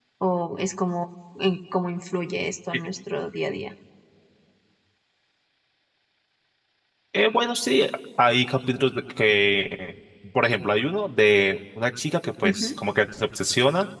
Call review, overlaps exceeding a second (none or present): none